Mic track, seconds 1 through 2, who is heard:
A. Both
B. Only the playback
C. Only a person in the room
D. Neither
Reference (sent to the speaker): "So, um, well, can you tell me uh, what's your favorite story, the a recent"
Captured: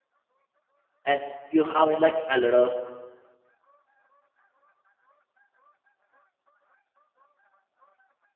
C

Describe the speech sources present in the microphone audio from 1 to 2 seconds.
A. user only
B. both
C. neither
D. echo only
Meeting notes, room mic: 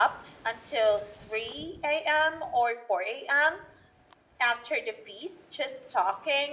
D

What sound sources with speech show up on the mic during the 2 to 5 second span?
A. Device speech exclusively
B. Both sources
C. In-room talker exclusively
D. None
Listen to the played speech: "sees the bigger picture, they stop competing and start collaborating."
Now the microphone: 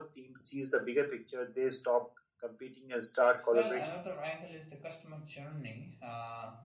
B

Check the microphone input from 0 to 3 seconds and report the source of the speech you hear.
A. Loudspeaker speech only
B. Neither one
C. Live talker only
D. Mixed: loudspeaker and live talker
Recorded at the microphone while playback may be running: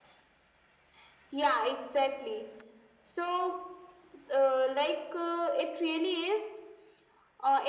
A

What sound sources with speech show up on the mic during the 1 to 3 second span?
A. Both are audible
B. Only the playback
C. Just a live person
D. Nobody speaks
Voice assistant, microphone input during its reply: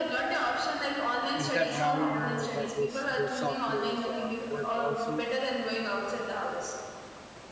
A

